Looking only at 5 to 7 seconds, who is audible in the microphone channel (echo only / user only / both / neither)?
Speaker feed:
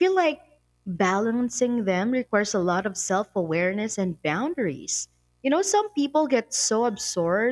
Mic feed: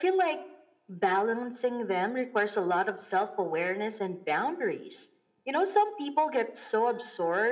echo only